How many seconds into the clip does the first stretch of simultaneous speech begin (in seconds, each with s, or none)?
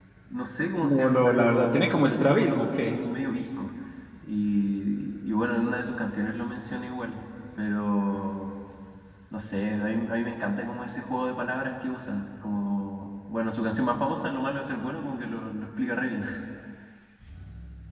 0.8 s